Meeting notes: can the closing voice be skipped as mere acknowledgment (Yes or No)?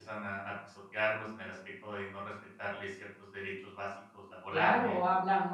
No